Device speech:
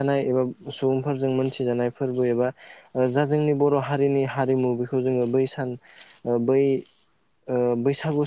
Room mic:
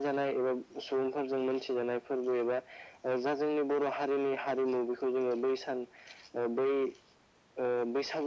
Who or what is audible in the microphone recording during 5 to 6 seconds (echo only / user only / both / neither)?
echo only